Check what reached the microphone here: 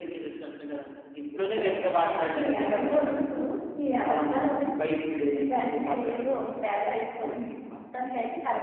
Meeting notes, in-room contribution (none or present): none